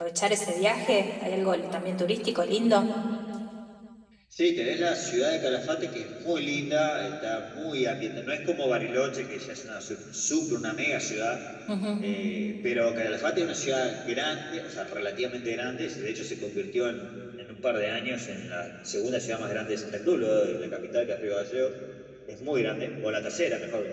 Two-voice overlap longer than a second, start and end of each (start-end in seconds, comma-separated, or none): none